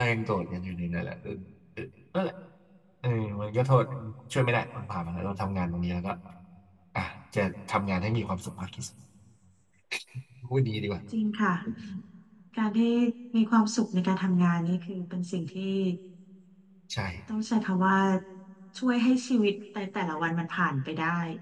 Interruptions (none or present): none